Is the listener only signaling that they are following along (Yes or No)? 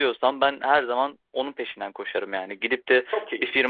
Yes